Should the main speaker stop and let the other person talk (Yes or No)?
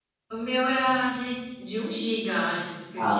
Yes